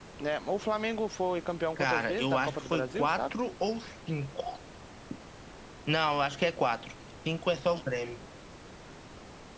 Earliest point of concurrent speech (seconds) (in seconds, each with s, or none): 1.8 s